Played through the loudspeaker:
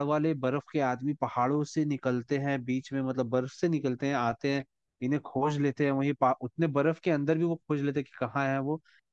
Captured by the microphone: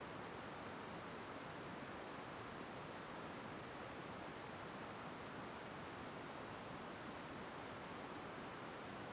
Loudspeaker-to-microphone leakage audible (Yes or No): No